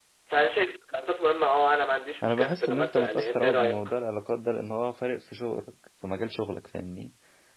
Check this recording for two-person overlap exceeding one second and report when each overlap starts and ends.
2.2-3.9

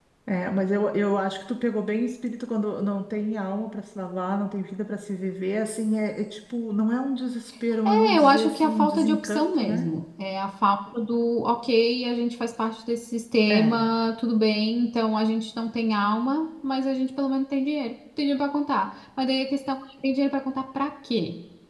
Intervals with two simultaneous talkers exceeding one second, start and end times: 7.8-9.8

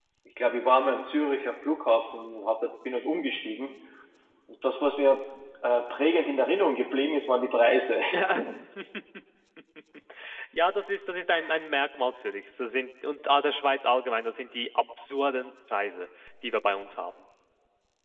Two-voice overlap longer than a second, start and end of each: none

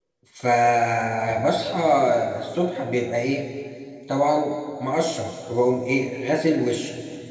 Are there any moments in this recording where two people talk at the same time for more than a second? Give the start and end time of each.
none

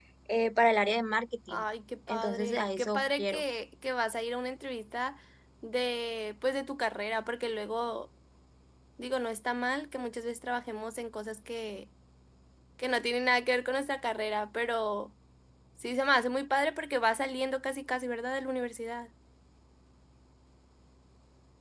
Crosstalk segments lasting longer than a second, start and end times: 2.1-3.4

